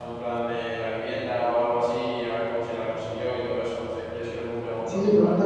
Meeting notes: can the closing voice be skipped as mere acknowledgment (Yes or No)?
No